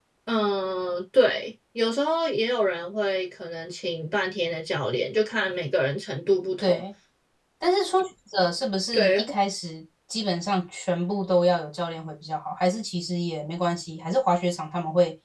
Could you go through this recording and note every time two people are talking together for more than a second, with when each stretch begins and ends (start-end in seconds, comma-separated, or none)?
none